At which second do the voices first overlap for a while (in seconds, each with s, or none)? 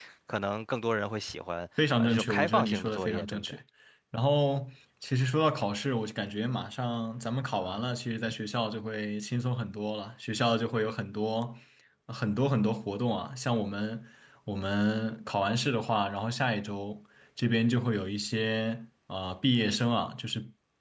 2.0 s